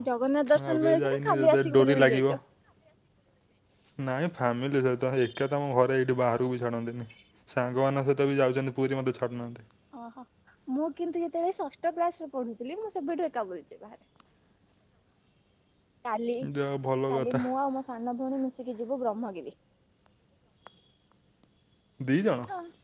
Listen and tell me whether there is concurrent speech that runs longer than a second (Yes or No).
Yes